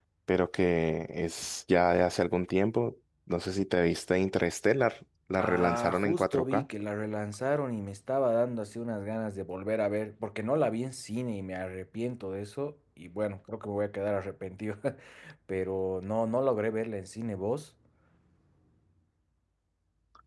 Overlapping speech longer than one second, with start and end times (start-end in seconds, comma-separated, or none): 5.4-6.7